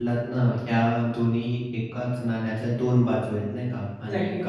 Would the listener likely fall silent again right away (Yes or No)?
Yes